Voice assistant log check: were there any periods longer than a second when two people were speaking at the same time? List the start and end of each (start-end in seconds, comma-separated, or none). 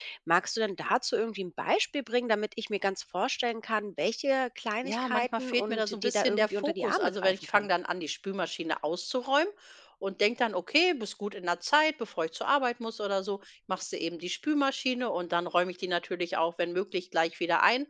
4.8-7.7